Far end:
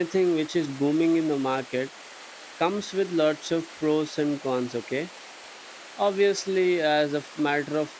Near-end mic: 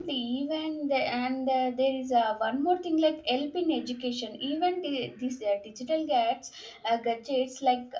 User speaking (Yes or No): Yes